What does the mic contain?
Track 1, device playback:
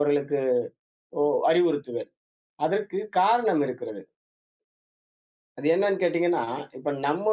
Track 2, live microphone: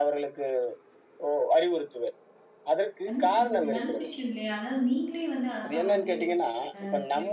both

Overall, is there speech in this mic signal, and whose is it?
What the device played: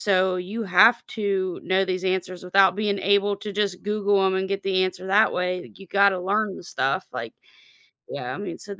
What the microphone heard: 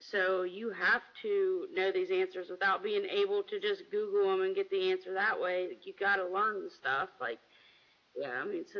echo only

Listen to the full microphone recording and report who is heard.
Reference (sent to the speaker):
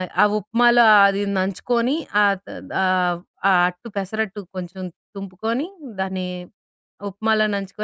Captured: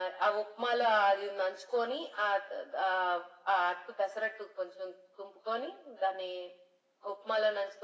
echo only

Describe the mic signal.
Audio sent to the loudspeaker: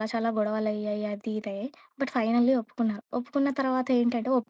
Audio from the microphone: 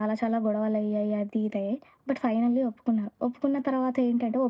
echo only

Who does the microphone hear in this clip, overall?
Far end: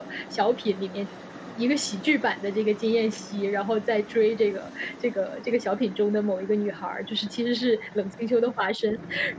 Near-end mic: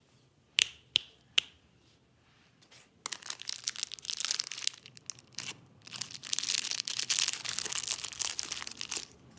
neither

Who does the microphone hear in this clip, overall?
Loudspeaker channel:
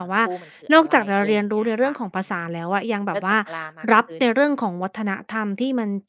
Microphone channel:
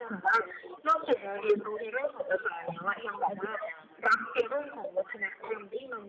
echo only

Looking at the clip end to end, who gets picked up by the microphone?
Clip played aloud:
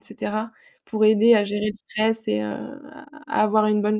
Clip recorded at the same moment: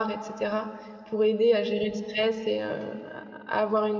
echo only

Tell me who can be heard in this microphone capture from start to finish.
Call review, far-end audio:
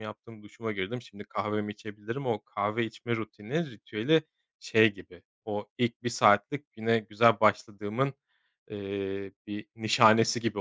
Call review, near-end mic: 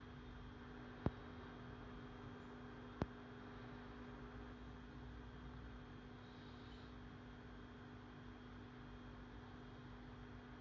neither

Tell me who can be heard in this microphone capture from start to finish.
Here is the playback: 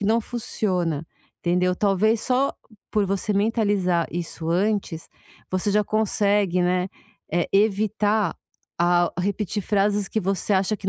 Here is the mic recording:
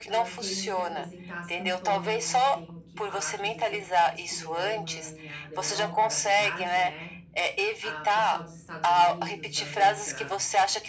both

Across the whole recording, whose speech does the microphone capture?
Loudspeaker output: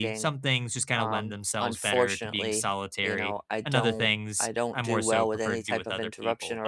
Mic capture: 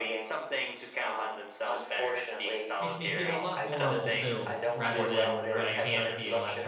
both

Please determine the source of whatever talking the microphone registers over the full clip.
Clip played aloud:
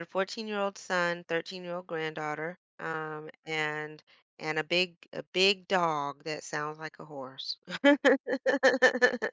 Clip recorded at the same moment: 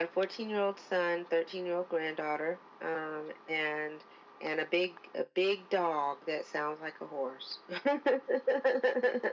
echo only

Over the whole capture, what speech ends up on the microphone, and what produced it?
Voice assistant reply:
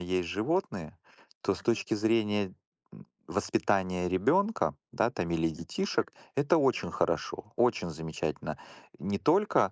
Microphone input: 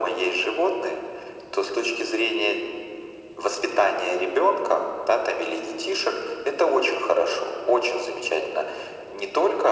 echo only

